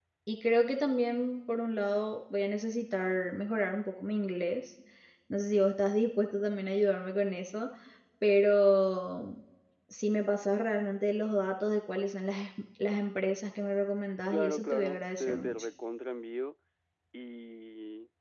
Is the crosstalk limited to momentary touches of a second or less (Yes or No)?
No